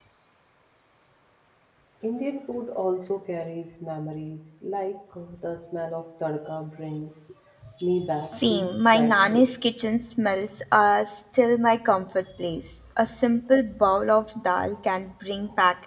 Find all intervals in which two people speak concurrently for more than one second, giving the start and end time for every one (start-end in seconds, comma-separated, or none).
8.1-9.4